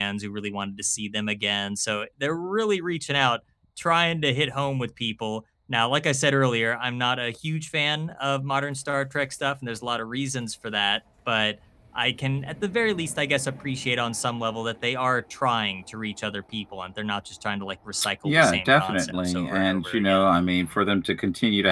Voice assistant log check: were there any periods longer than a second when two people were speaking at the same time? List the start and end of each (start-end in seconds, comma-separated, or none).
18.2-20.2